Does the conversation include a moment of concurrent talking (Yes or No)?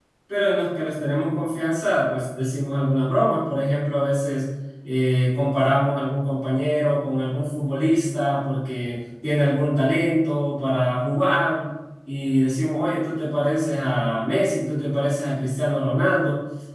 No